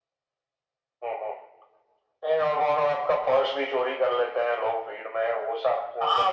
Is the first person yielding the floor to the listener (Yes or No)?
Yes